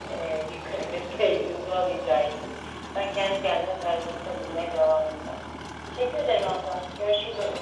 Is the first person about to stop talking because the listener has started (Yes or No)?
Yes